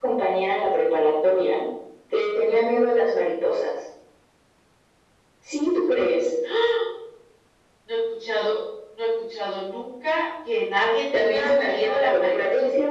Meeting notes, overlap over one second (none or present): present